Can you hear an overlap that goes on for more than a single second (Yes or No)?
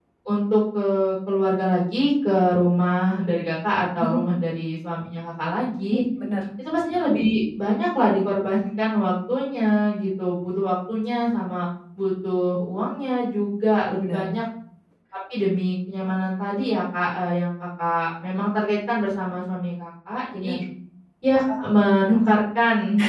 No